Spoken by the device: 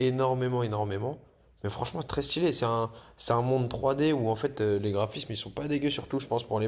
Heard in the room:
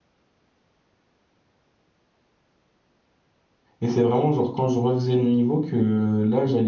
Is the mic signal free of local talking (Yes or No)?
No